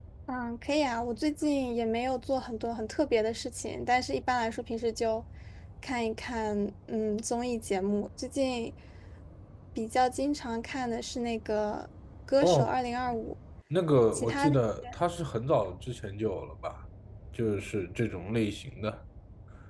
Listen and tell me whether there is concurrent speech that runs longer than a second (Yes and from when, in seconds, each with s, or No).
No